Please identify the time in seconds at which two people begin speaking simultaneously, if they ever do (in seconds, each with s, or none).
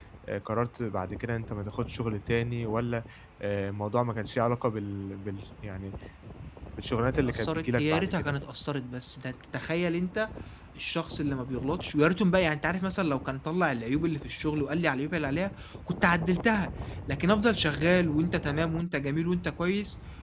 7.2 s